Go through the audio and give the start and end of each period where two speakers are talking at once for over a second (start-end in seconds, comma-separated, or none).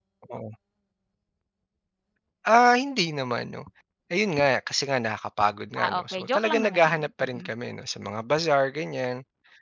5.8-7.5